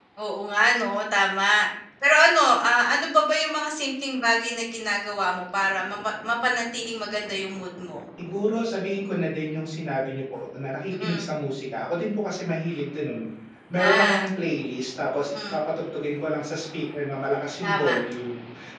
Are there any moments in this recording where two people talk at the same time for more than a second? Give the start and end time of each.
none

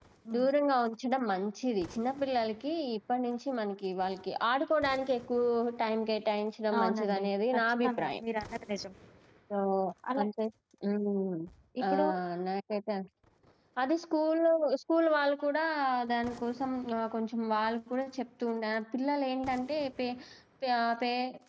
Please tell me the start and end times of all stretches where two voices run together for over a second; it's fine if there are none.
6.8-8.2

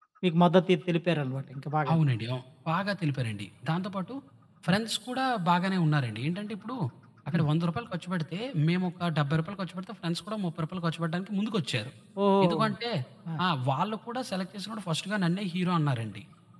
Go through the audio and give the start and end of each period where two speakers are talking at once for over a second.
none

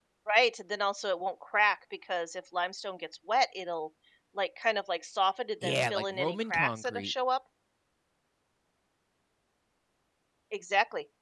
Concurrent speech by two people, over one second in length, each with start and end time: 5.6-7.1

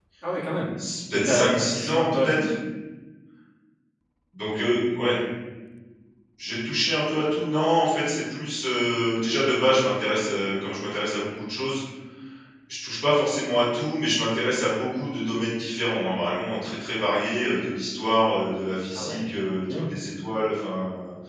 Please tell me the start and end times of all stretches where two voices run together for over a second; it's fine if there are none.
1.1-2.5

